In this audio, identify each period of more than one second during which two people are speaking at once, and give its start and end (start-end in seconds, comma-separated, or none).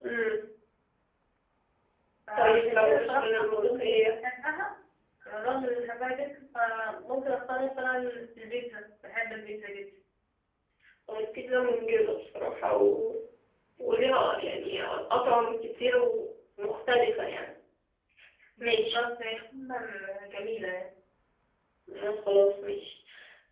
2.4-4.0